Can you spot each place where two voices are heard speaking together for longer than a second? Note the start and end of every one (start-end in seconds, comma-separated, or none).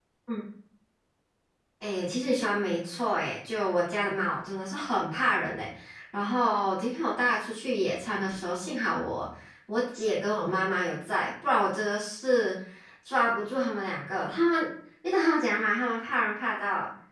none